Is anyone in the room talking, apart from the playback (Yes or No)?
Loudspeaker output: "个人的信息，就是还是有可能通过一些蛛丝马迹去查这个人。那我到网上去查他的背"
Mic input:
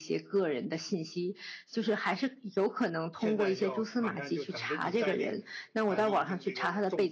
Yes